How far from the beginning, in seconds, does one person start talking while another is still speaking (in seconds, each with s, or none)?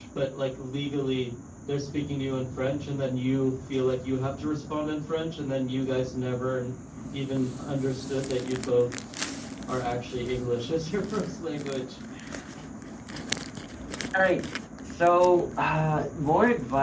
none